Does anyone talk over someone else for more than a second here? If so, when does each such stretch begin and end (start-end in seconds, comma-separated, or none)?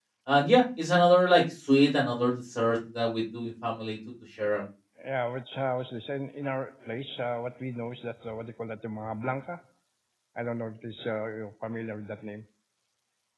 none